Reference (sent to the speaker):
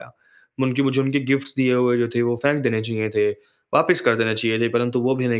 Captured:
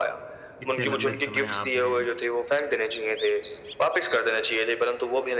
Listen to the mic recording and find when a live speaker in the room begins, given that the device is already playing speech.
0.6 s

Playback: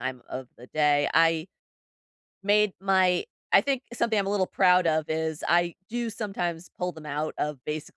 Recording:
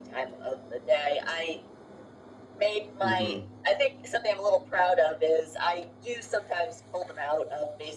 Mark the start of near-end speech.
3.0 s

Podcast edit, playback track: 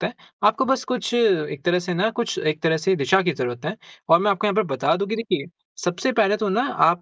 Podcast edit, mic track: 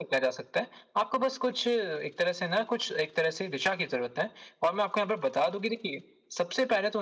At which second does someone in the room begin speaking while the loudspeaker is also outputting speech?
none

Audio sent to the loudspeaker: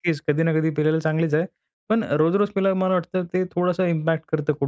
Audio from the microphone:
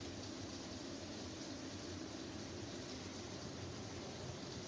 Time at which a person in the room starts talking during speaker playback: none

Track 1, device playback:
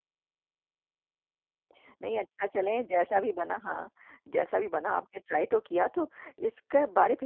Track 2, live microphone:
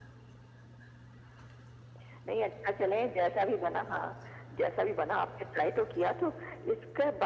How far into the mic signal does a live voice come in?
none

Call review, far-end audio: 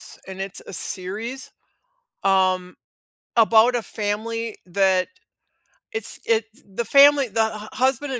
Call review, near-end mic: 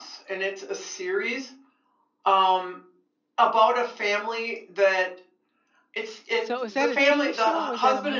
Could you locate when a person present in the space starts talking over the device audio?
6.4 s

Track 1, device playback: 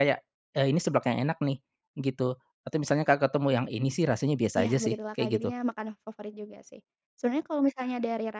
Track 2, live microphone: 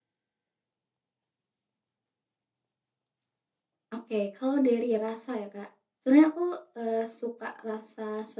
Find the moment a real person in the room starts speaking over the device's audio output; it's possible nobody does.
3.9 s

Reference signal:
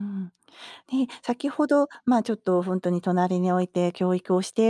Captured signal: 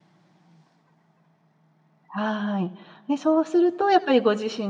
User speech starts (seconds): 2.1 s

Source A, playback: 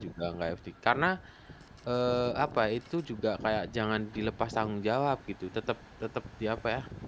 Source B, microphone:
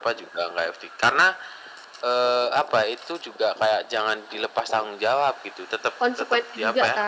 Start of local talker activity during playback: 6.0 s

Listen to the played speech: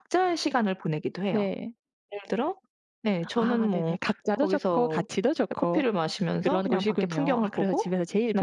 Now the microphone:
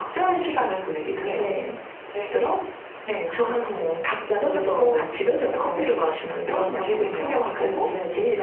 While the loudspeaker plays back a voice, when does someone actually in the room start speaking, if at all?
none

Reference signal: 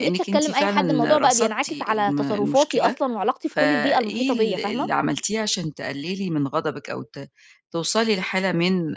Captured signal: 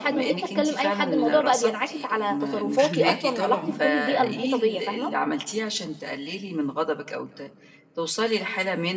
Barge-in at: 2.8 s

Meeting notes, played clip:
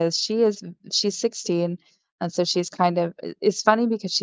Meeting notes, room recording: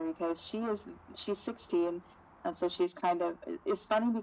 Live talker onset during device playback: none

